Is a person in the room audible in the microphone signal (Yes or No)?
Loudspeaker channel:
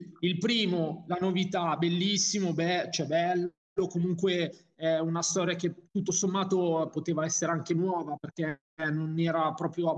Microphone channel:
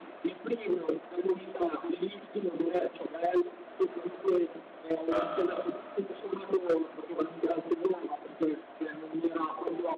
Yes